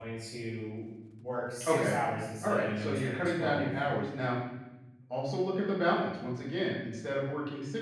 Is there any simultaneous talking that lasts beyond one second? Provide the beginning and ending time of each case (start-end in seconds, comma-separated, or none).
2.4-3.7